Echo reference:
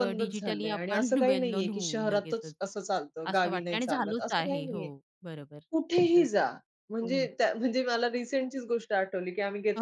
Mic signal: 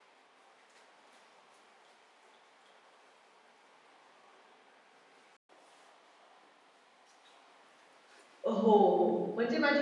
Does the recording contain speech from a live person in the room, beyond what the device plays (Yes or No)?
Yes